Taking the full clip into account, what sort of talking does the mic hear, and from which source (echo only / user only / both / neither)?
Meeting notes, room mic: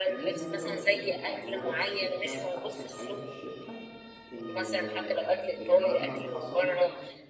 both